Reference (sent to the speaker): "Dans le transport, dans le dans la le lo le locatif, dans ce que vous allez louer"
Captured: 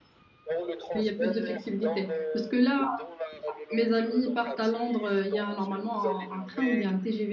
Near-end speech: present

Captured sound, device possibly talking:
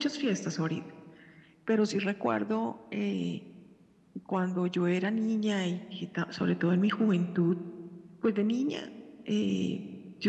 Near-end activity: none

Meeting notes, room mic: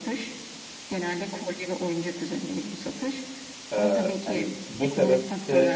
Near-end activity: present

